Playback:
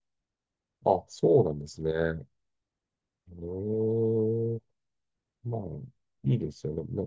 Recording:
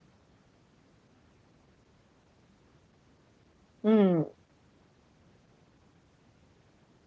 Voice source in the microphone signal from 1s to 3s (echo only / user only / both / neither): neither